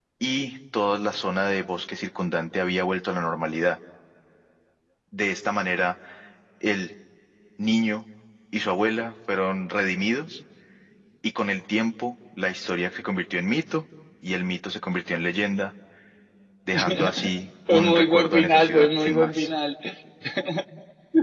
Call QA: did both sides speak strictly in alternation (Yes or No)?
No